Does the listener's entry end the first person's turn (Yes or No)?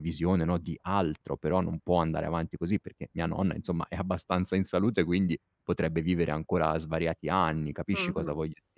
Yes